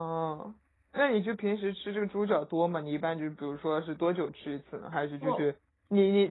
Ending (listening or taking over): listening